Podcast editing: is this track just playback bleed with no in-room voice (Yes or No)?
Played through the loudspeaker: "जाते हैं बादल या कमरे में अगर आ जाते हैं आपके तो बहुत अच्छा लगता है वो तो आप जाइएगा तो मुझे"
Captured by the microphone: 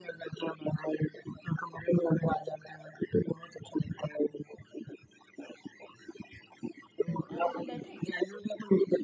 No